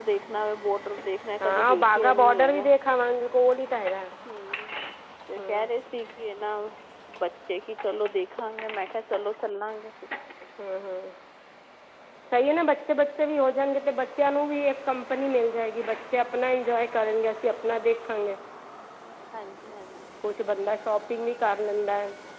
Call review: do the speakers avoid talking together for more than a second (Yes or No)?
No